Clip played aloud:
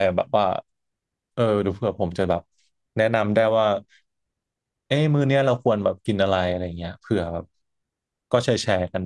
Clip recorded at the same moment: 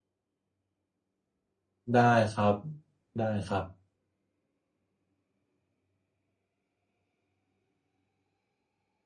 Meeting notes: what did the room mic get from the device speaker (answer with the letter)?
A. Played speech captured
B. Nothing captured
B